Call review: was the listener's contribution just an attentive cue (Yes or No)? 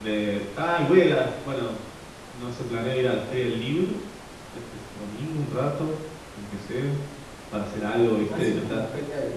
No